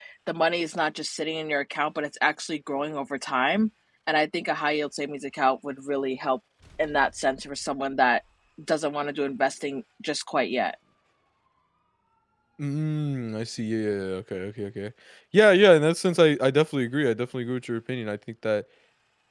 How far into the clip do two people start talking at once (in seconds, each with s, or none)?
none